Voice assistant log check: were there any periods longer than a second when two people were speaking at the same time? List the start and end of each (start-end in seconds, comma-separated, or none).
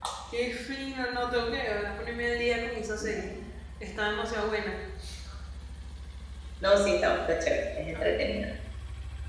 none